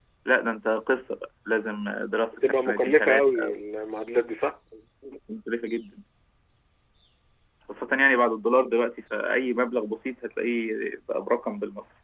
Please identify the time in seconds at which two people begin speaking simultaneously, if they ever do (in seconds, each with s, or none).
2.3 s